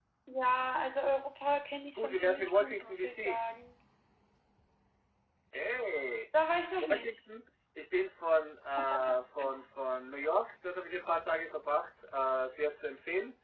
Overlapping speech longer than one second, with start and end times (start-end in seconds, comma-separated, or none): 2.0-3.4